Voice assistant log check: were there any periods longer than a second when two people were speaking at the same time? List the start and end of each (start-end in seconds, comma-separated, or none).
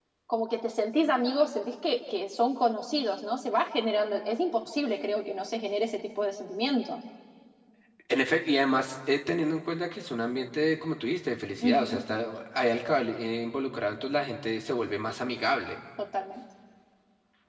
none